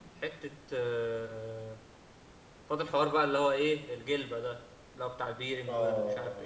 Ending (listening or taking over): taking over